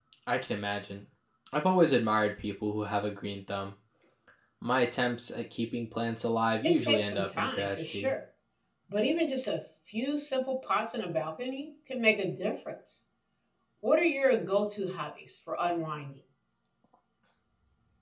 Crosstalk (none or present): present